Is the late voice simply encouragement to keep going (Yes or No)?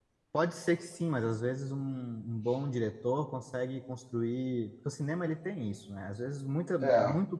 Yes